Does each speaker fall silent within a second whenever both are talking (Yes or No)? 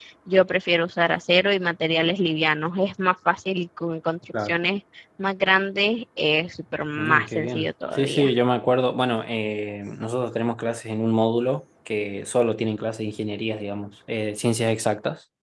No